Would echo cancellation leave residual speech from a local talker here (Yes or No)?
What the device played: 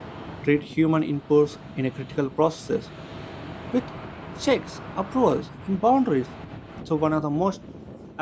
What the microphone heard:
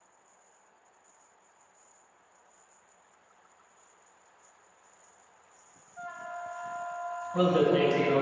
Yes